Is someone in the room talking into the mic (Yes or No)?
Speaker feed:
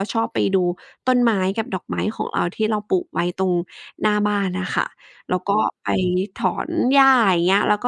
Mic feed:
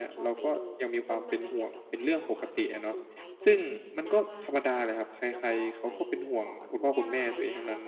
Yes